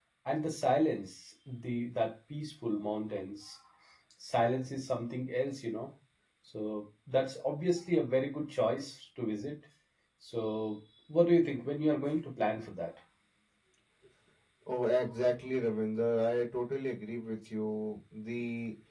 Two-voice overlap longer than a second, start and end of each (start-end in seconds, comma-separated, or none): none